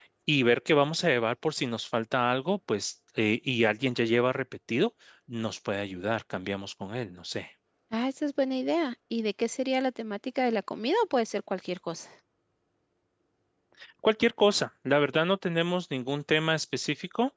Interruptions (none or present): none